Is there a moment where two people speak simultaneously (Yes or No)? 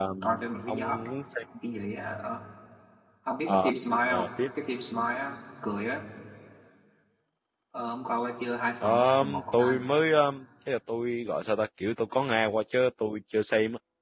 Yes